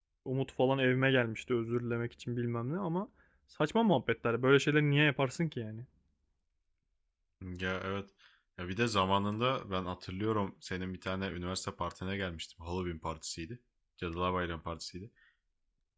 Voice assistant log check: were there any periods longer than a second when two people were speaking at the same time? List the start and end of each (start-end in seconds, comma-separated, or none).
none